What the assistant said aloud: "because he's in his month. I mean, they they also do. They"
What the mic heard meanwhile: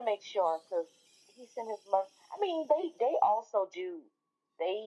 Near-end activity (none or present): none